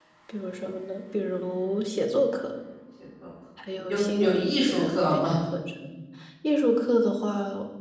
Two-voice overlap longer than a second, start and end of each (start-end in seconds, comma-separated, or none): 3.9-5.3